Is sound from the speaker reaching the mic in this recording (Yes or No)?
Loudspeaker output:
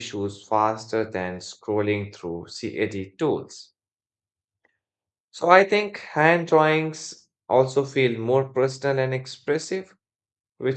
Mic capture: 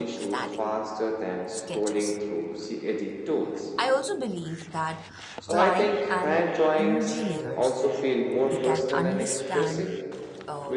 Yes